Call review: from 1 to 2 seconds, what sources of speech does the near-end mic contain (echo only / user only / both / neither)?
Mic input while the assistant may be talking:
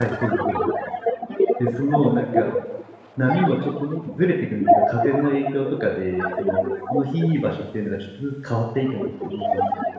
both